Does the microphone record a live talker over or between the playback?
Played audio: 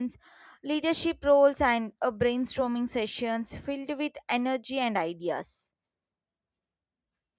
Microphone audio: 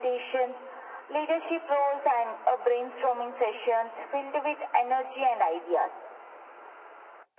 No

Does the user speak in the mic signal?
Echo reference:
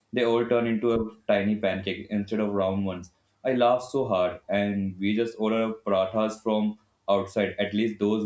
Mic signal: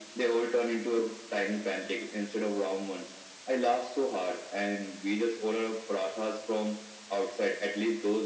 No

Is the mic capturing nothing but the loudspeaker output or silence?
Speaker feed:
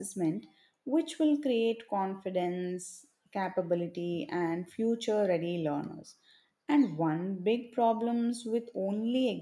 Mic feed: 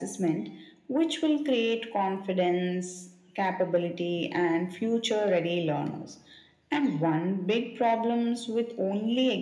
Yes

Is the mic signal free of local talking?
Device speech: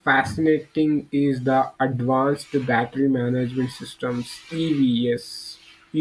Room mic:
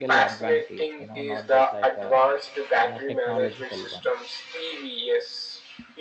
No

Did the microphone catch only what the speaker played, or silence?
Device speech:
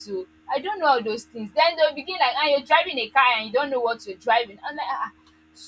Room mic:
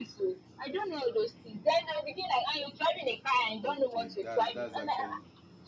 No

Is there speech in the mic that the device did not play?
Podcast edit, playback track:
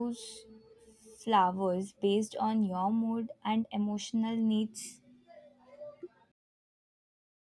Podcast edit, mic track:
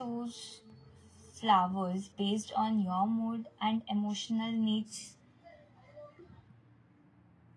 No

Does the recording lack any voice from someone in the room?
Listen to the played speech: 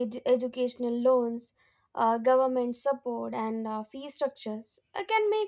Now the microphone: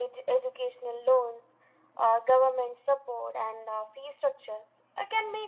Yes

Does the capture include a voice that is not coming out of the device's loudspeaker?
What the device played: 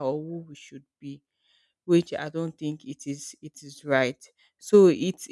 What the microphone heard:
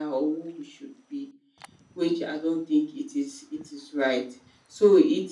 No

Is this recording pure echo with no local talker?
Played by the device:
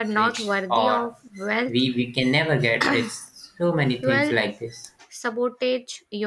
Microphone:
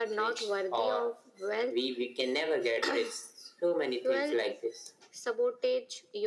Yes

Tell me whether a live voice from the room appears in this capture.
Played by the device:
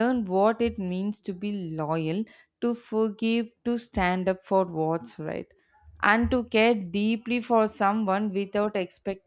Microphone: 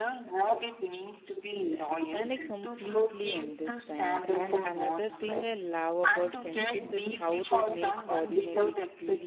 Yes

